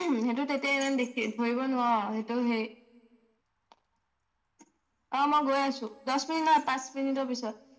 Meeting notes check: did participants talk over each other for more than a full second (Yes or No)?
No